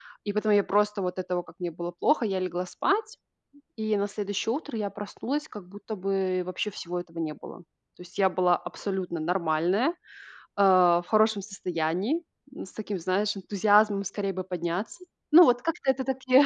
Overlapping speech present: No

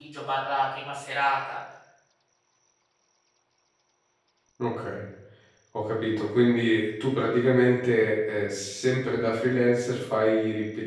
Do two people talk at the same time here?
No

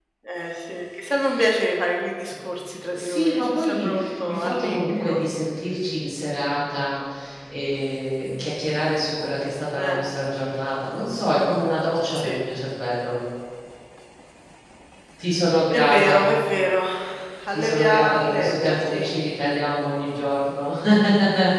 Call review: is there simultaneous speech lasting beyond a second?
Yes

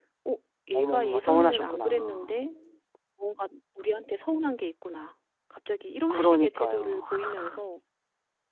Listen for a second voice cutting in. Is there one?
Yes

